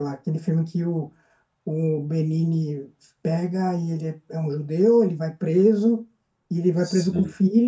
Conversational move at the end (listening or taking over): listening